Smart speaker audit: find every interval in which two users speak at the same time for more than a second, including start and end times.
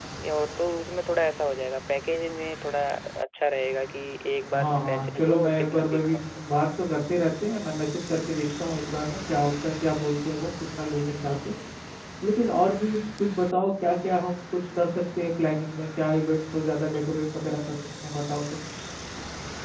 4.5-6.2

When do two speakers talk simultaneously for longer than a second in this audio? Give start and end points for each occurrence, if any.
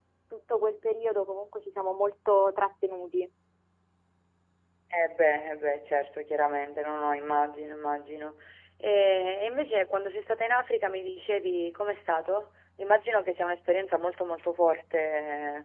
none

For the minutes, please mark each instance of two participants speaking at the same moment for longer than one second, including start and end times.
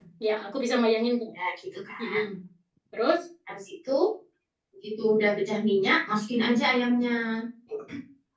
none

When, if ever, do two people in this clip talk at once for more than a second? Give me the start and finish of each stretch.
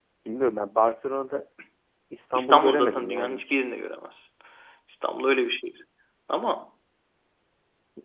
2.4-3.6

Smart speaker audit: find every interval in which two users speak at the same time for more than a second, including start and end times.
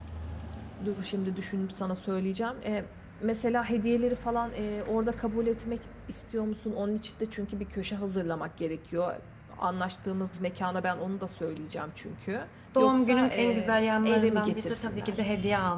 12.8-15.2

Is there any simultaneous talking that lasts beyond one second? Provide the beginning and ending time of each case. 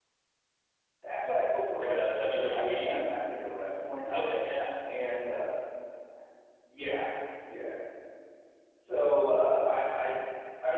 1.8-3.0

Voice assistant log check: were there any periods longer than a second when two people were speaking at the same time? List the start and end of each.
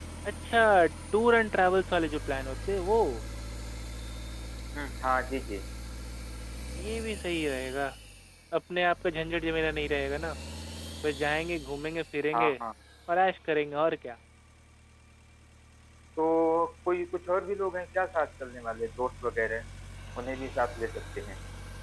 none

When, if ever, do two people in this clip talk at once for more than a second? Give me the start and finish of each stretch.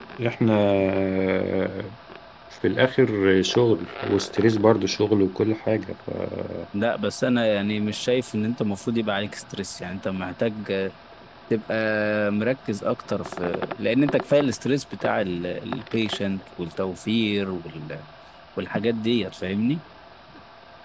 none

